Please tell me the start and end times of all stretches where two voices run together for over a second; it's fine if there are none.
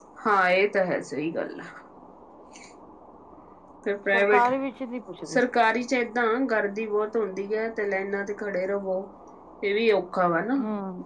none

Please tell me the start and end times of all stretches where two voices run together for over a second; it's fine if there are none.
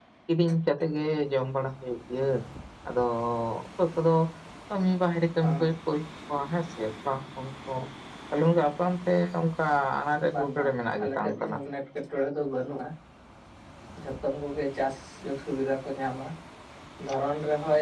10.3-11.6

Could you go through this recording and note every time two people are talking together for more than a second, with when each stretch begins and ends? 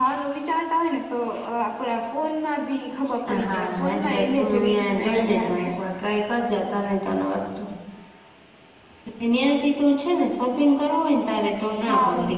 3.5-5.7

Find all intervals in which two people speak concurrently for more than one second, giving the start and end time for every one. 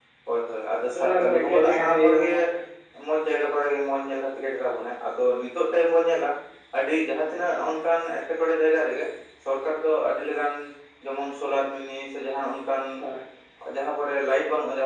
1.0-2.3

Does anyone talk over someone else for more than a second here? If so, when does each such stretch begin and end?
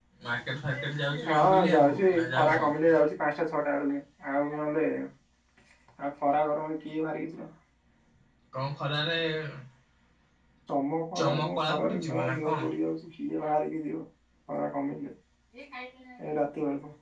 1.3-2.6, 11.2-12.7

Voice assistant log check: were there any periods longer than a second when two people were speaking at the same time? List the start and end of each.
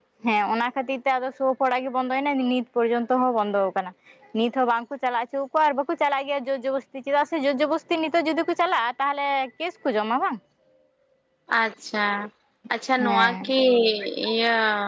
none

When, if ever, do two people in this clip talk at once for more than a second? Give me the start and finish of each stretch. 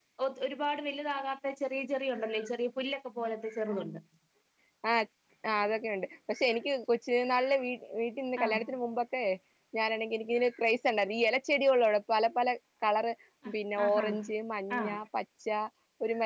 none

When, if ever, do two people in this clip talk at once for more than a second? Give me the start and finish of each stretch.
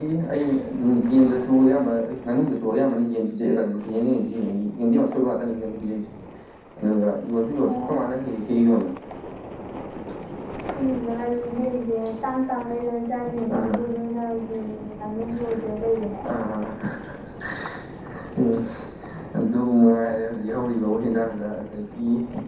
none

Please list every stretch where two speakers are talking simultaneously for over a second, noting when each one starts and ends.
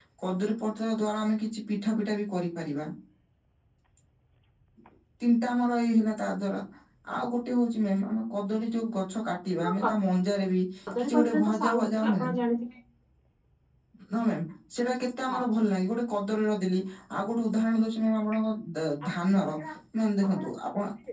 11.0-12.3

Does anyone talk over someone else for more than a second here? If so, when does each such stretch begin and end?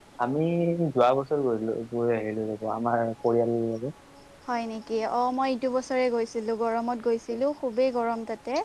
none

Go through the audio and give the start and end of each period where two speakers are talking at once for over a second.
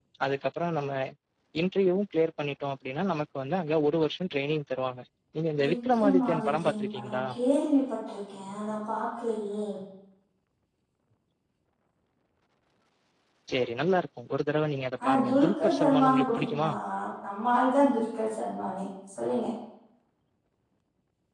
5.7-7.2, 15.1-16.7

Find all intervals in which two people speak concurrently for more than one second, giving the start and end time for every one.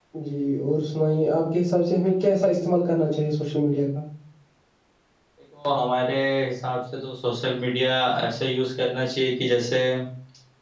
none

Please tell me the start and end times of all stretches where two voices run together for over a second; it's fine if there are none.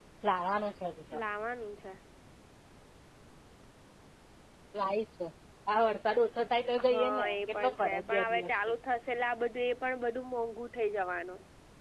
6.9-8.6

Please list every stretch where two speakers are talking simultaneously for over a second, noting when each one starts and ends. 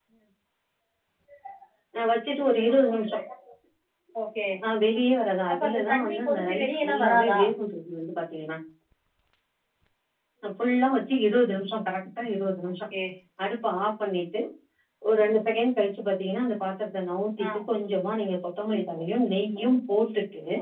5.5-7.4

